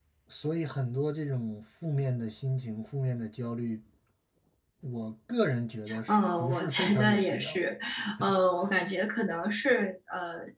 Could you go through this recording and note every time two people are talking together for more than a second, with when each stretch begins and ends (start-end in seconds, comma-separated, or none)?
6.1-7.6